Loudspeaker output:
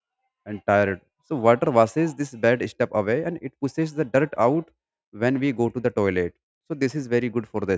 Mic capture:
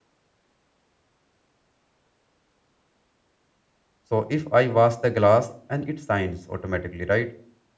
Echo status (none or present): none